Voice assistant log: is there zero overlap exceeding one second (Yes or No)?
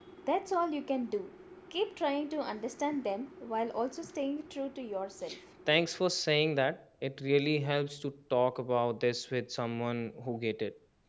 Yes